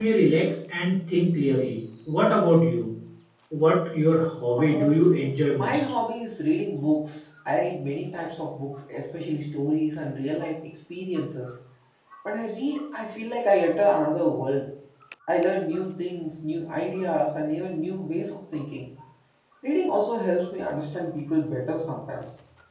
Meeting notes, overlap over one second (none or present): present